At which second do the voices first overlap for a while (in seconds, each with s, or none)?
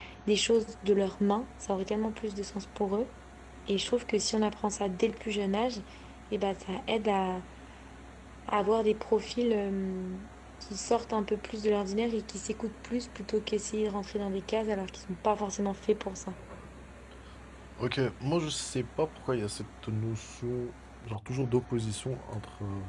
none